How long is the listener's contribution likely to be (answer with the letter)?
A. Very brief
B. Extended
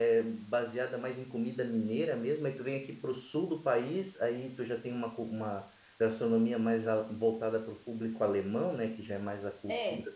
A